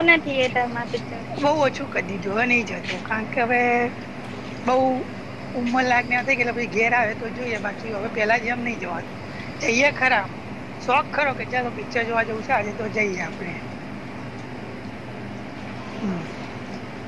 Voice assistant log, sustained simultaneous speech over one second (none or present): none